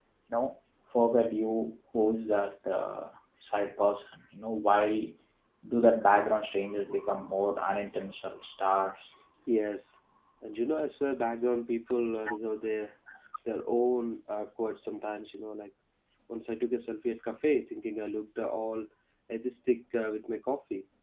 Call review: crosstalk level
none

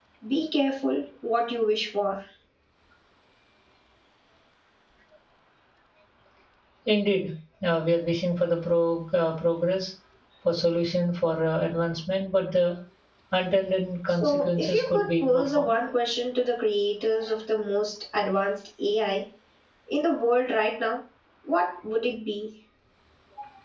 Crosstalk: present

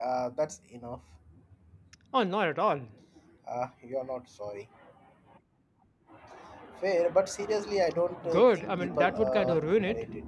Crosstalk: present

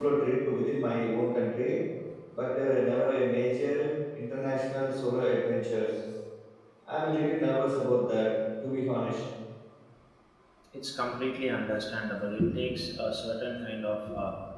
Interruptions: none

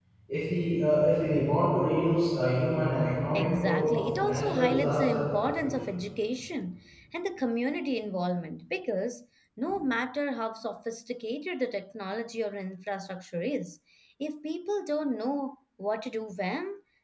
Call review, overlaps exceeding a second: present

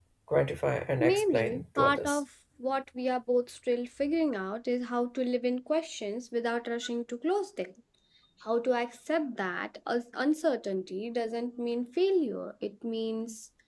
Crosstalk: present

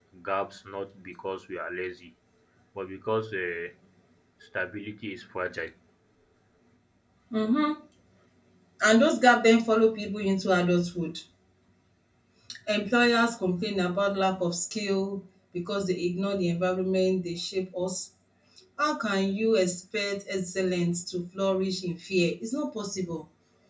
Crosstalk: none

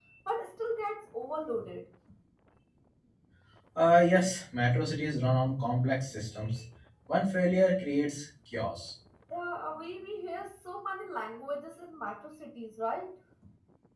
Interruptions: none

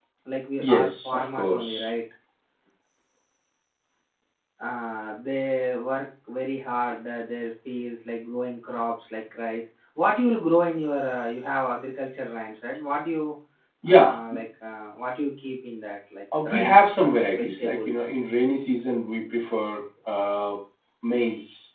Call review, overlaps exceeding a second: present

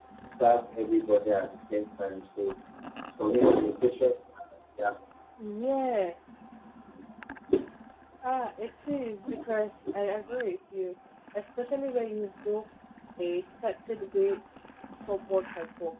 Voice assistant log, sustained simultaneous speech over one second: none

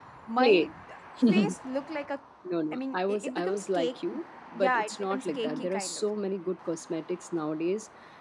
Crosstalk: present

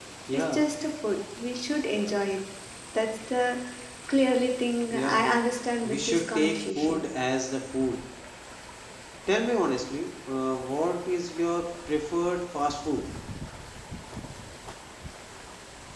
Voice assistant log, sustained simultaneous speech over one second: present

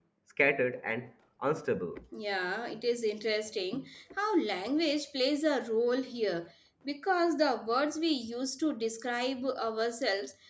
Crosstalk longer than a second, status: none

